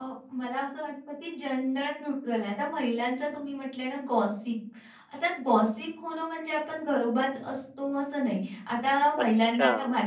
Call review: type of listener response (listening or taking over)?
listening